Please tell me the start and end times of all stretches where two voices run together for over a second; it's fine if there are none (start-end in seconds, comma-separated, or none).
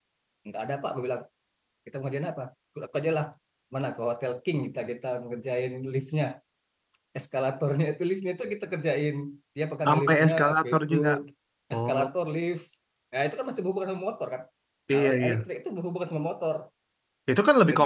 9.8-11.1